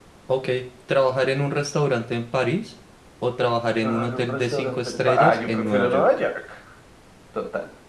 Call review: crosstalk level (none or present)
present